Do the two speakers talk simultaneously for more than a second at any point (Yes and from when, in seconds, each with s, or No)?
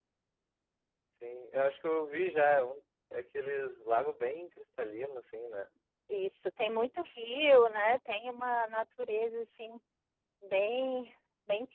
No